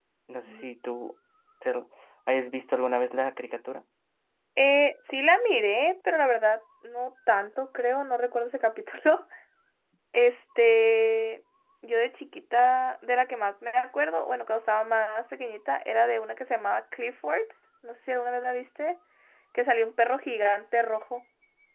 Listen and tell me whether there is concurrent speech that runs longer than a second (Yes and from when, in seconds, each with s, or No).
No